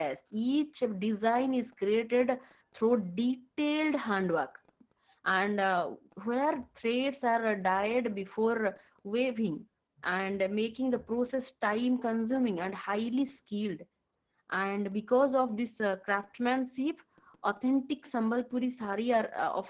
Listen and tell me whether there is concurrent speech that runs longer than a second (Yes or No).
No